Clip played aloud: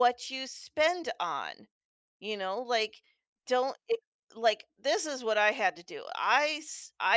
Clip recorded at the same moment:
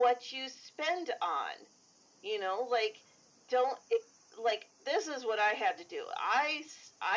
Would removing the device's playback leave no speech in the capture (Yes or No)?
Yes